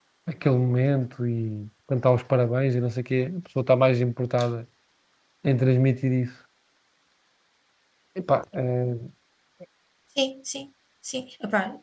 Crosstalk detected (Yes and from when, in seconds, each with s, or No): No